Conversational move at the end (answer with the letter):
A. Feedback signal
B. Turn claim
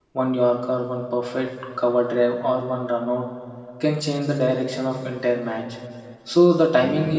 A